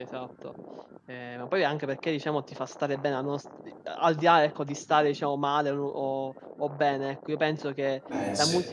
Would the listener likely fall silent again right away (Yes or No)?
Yes